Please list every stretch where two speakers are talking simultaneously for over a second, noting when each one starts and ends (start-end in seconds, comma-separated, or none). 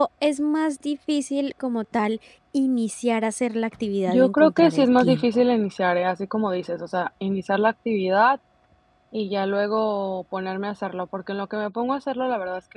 4.1-5.4